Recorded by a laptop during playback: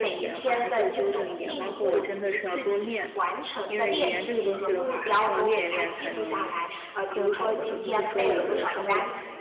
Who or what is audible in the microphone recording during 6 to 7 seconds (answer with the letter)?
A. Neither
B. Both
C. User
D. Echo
B